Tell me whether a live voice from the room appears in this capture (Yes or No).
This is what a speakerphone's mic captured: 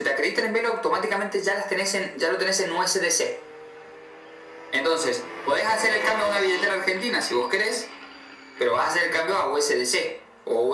No